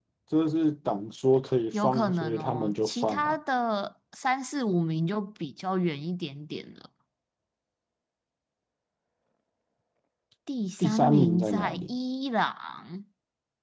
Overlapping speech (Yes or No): Yes